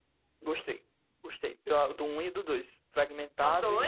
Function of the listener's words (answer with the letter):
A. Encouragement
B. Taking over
A